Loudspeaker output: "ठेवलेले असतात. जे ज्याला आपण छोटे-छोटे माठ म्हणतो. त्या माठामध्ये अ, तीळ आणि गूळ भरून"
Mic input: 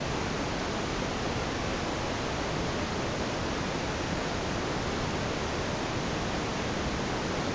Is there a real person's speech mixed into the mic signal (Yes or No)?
No